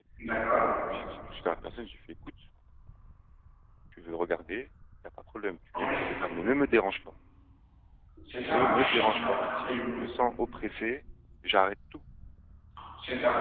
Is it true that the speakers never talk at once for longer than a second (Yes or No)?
No